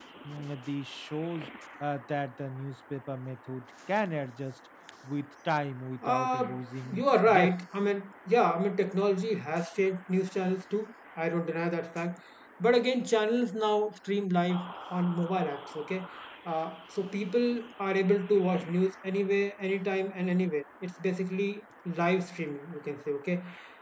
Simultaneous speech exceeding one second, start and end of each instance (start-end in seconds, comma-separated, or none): 6.0-7.5